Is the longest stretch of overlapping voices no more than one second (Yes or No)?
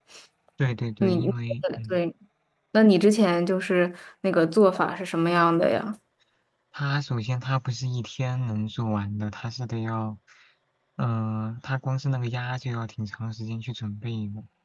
Yes